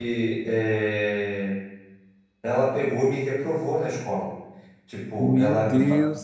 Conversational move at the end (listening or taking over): taking over